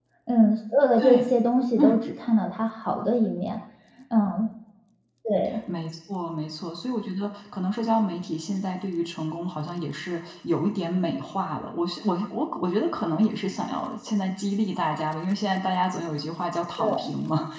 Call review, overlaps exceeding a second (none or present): none